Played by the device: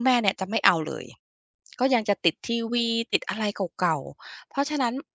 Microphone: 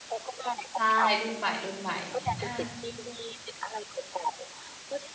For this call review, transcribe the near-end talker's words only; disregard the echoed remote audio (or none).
ใช่รุ่นใหม่ๆอา